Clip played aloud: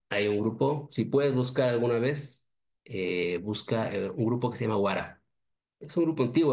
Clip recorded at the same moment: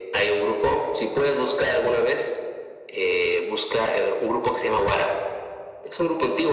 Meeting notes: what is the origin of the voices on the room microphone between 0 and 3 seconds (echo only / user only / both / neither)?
echo only